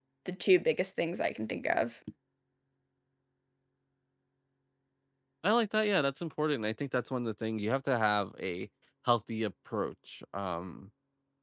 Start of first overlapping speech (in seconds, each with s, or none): none